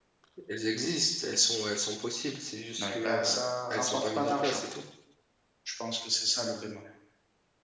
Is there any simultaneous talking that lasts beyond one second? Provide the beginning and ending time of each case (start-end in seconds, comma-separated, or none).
2.8-4.6